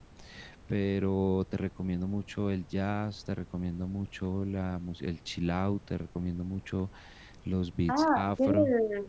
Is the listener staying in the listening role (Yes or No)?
No